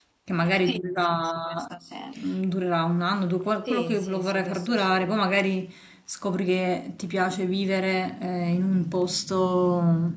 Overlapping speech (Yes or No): Yes